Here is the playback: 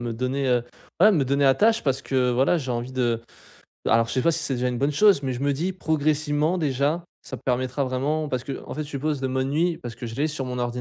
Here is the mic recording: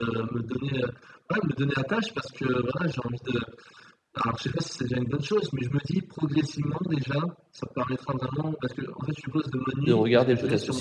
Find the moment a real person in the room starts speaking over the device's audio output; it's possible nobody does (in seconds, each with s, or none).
9.9 s